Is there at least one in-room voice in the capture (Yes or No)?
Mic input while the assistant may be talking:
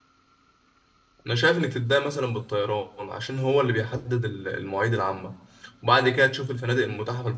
Yes